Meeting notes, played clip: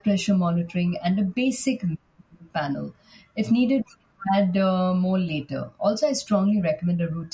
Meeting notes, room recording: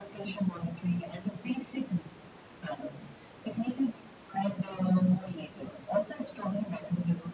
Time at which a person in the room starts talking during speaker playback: none

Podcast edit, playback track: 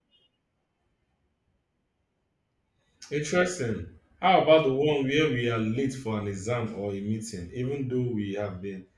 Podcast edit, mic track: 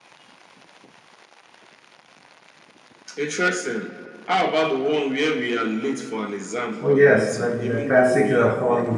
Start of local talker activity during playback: 6.8 s

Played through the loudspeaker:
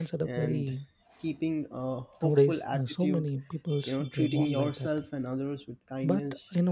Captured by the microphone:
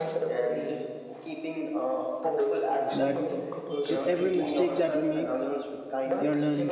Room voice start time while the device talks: 2.9 s

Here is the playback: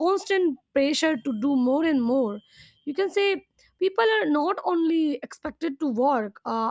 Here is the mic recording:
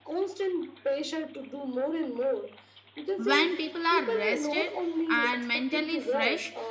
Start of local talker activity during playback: 3.2 s

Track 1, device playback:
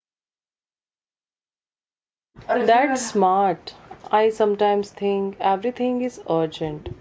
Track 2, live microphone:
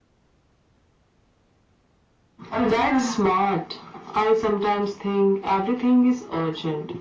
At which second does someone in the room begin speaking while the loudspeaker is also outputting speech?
none

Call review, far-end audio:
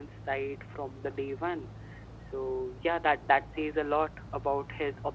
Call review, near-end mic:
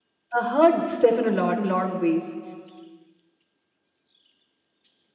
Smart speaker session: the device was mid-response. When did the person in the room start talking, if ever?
0.4 s

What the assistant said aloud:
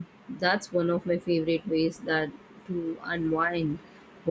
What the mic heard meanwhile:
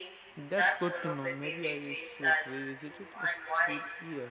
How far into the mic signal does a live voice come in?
0.3 s

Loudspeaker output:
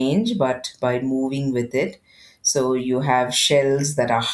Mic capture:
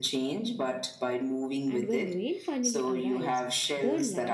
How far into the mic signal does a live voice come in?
1.7 s

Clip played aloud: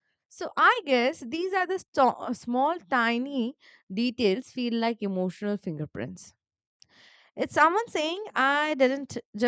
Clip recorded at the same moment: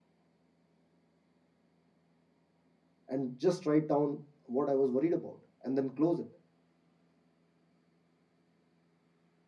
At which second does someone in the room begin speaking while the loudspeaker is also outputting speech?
3.1 s

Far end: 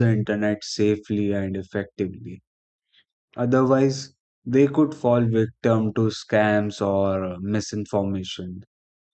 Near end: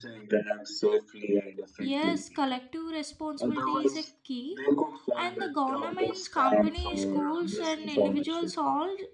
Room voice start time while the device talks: 1.8 s

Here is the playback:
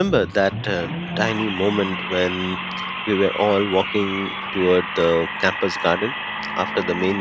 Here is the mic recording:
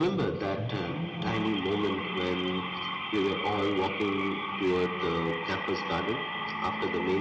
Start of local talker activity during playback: none

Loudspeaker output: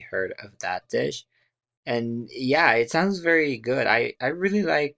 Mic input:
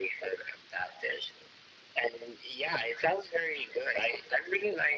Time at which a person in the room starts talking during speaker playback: none

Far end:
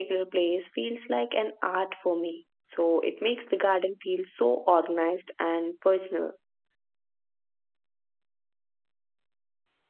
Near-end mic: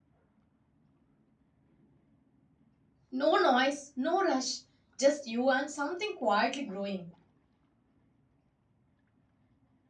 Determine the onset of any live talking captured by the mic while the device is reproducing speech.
3.1 s

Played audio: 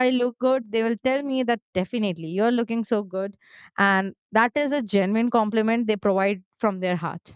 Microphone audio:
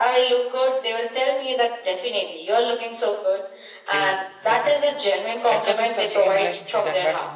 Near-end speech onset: 3.9 s

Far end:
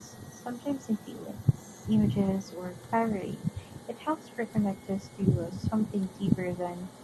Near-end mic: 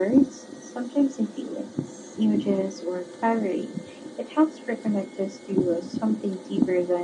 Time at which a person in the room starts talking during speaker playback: none

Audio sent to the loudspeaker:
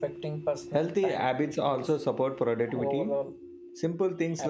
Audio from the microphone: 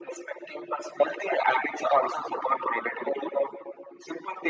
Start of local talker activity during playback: none

